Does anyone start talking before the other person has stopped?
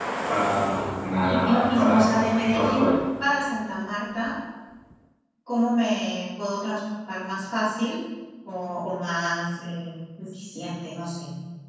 Yes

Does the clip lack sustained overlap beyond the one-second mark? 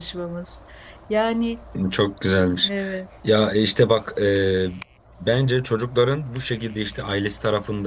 Yes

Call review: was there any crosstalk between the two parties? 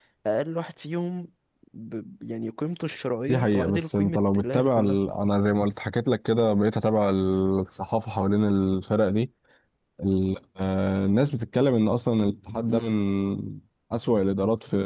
Yes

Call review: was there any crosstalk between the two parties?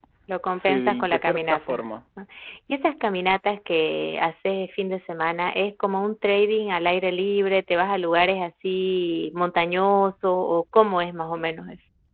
Yes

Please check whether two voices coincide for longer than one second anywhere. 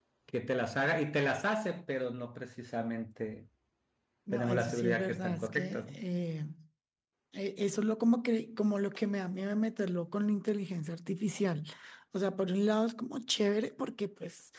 Yes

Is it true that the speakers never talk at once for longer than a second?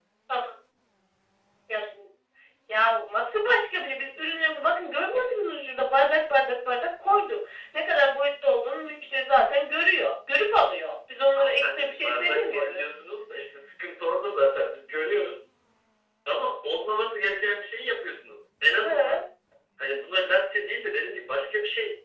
No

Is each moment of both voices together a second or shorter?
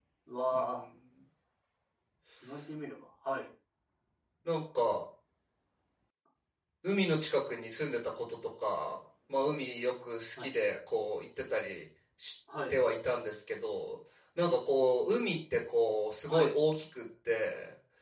Yes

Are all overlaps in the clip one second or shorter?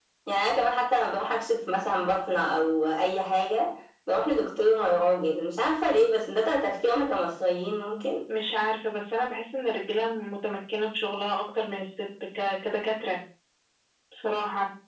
Yes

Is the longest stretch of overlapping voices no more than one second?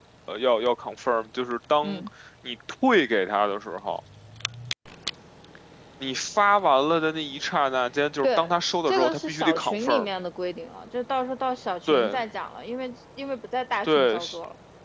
No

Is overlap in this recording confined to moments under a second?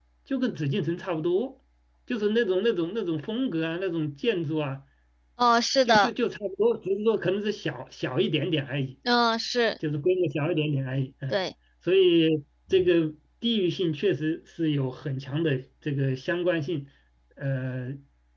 Yes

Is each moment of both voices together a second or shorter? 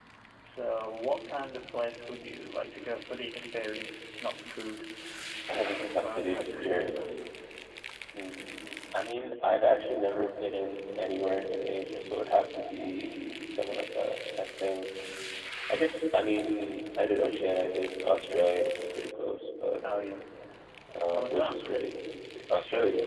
No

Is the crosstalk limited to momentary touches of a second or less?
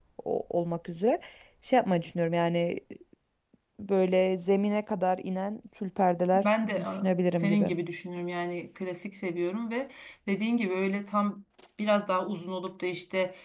No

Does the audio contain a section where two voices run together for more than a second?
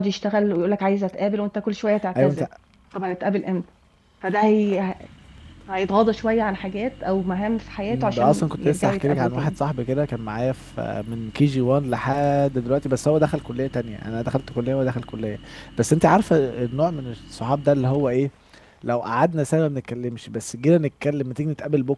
Yes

